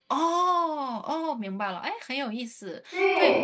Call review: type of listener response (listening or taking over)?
taking over